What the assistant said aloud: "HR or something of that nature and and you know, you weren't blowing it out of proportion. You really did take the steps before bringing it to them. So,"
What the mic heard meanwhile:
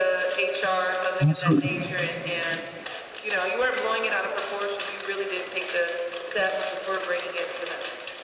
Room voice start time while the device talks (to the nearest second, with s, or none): 1 s